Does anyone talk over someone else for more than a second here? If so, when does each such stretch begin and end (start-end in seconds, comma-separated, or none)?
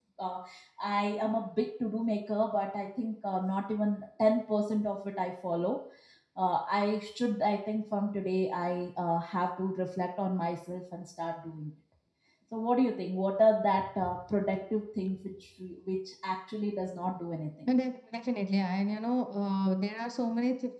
none